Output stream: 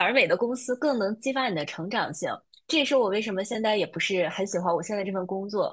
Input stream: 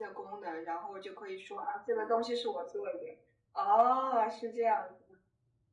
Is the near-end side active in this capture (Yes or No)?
Yes